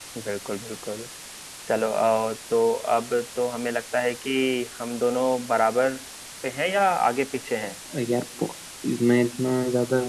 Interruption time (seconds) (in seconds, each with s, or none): none